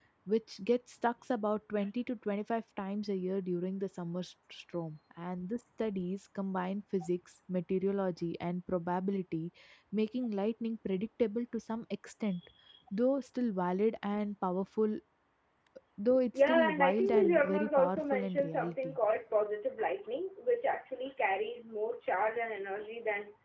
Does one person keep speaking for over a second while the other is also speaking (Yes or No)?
Yes